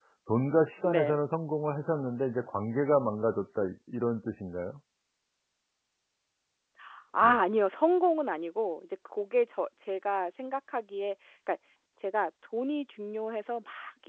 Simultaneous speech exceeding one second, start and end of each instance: none

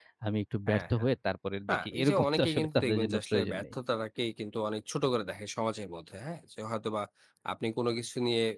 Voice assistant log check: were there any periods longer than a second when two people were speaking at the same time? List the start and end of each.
1.7-3.7

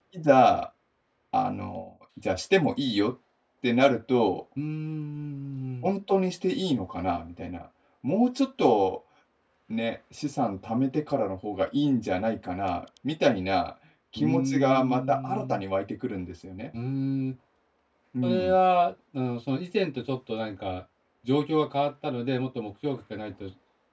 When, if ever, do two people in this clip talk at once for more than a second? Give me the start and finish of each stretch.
14.2-15.6

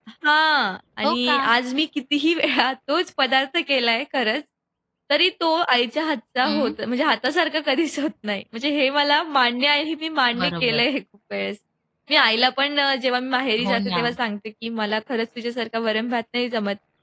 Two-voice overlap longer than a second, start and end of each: none

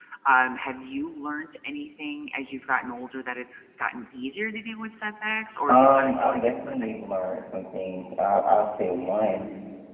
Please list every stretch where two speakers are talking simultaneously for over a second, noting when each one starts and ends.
5.7-7.1

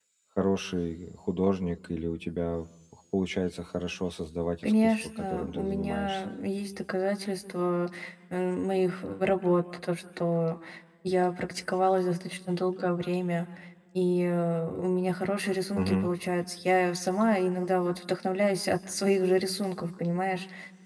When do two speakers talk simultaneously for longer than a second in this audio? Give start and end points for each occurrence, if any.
4.6-6.2

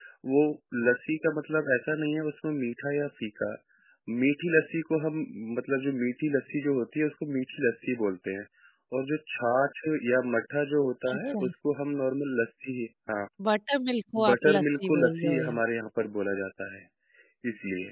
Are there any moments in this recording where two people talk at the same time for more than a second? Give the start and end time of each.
14.3-15.6

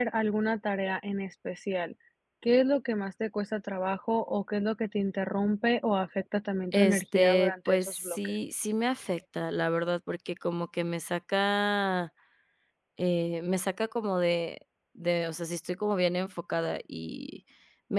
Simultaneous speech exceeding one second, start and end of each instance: 6.7-8.2

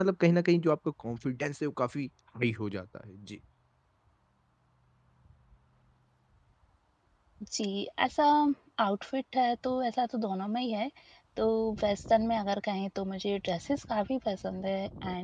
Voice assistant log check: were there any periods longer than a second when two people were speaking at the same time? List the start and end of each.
none

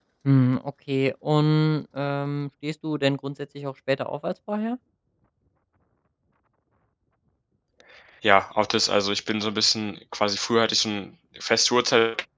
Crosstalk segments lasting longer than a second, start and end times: none

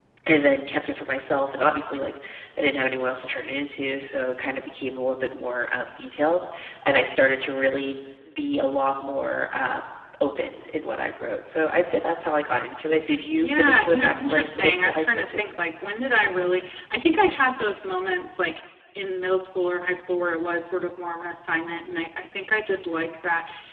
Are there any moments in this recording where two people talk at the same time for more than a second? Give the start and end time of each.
13.3-15.4

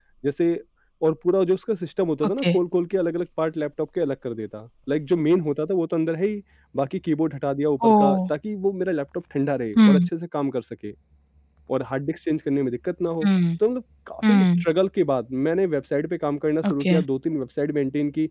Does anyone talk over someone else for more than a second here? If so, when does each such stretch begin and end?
none

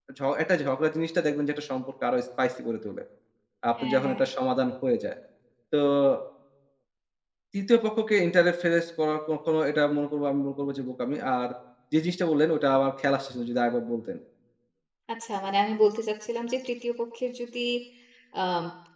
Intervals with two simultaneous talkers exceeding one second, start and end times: none

